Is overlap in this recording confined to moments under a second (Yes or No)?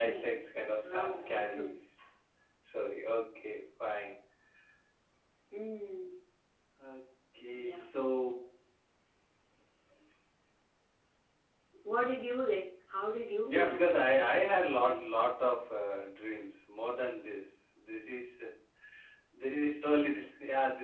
No